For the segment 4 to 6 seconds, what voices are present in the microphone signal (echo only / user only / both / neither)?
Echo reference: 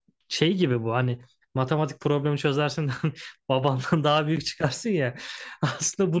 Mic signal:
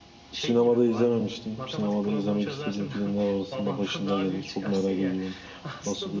both